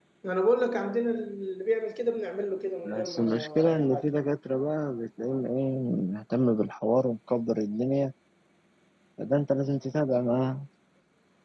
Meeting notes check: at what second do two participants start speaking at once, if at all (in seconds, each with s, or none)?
2.8 s